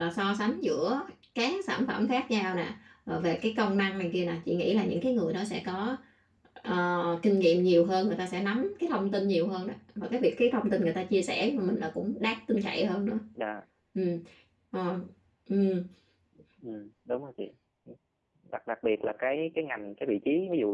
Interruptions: none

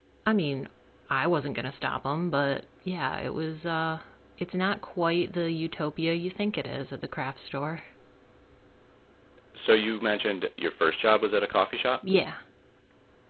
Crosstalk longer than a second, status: none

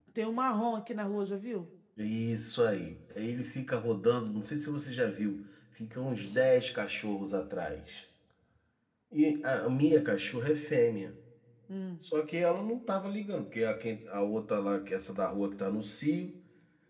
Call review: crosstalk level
none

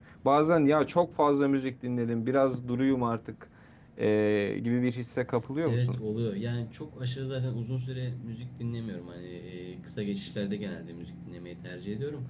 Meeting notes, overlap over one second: none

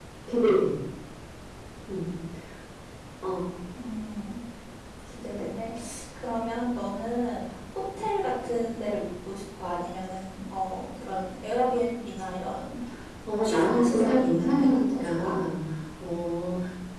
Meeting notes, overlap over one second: present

